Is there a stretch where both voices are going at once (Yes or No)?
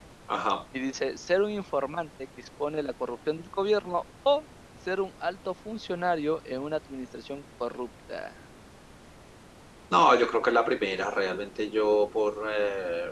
No